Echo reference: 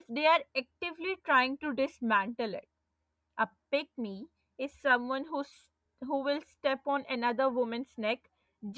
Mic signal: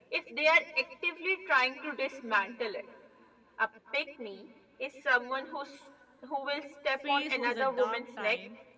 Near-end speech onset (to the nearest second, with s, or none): 7 s